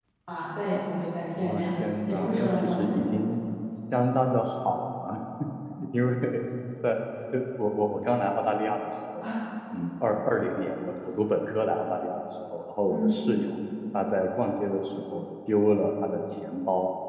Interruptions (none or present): present